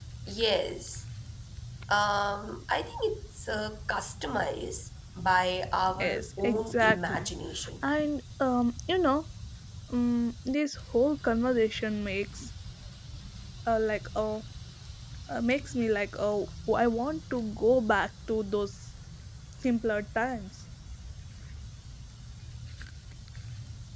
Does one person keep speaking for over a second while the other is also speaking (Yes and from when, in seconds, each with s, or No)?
Yes, from 6.0 s